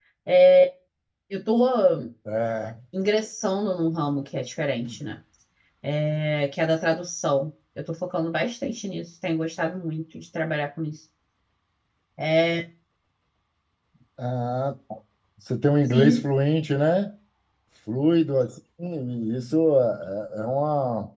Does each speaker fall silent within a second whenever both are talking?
Yes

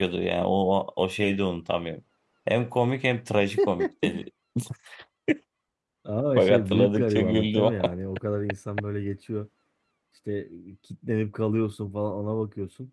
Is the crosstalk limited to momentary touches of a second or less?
No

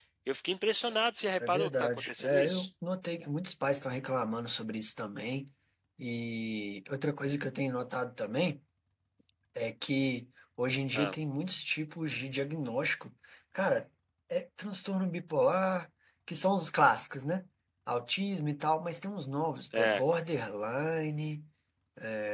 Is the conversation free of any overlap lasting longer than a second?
No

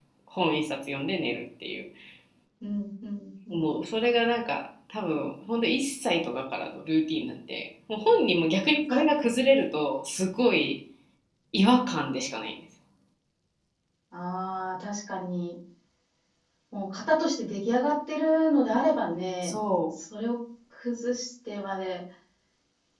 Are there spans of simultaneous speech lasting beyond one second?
No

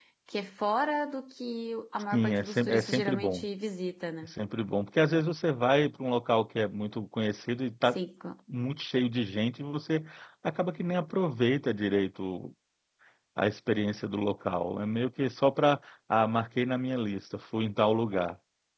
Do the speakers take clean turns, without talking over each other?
No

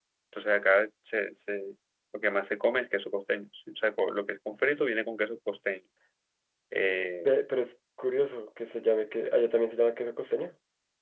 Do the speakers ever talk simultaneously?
No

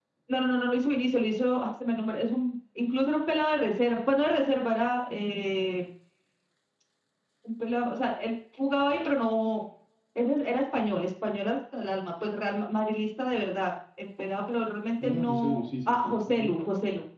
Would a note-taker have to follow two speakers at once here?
Yes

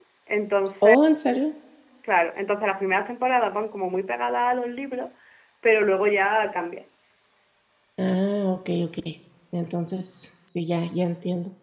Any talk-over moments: No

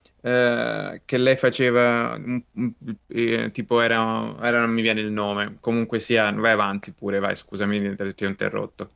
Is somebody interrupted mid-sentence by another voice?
No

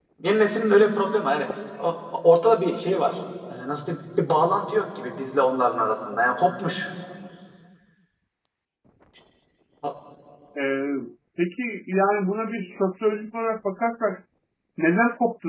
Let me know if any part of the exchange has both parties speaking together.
No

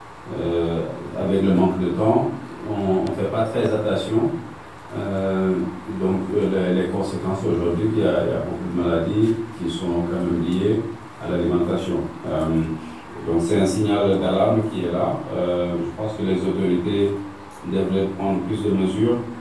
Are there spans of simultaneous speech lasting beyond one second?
No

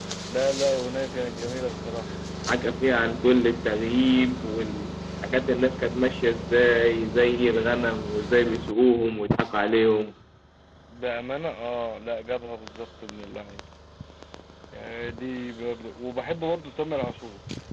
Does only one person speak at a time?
Yes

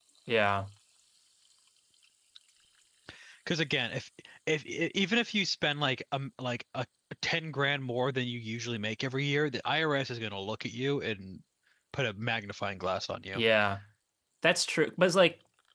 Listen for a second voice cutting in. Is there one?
No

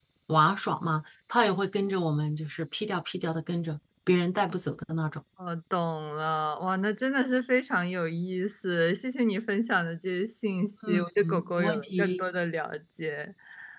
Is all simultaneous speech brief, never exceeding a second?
No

